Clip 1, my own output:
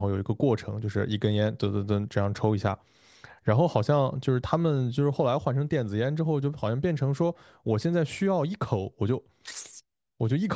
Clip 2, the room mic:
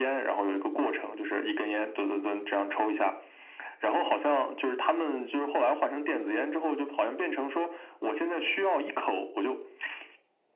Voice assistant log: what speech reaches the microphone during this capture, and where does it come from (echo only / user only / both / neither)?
echo only